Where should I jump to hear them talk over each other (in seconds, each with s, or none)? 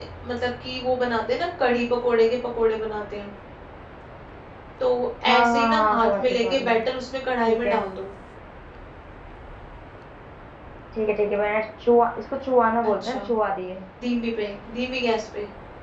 5.3 s